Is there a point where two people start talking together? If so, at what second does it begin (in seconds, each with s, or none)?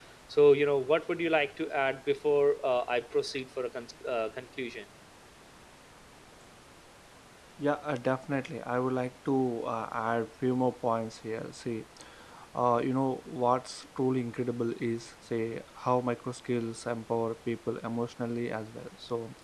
none